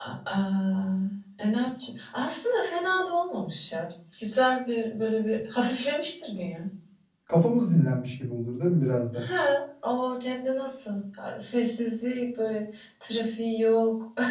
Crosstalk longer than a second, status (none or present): none